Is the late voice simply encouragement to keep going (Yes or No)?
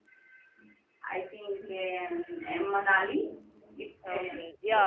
No